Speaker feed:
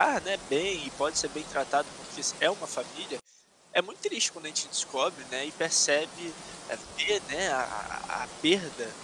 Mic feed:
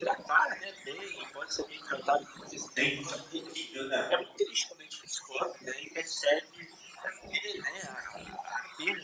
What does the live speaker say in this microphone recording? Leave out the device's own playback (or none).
Nem que fosse um pouquinho, né.